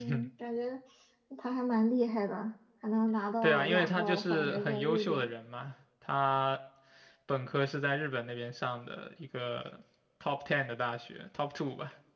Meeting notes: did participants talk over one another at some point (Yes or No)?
Yes